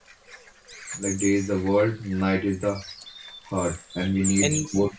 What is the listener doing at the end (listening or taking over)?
listening